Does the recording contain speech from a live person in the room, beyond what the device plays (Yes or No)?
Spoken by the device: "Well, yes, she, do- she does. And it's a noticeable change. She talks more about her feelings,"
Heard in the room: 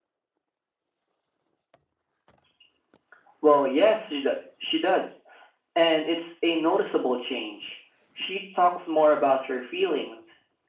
No